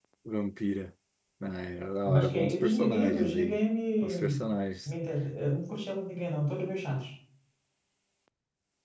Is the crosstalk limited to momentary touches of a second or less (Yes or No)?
No